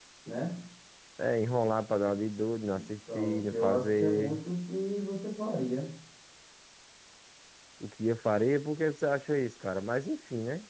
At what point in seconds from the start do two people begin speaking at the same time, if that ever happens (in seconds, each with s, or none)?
3.1 s